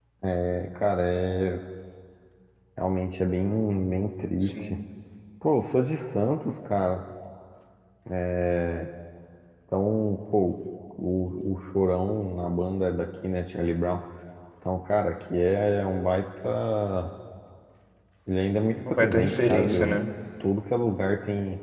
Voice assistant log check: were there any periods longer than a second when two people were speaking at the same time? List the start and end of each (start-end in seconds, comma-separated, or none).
18.7-20.0